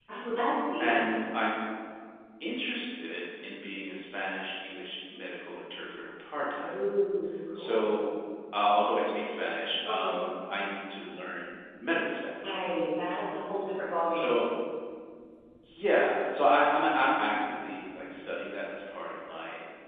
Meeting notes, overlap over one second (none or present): none